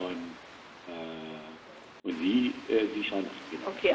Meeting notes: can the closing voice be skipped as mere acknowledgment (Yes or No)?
No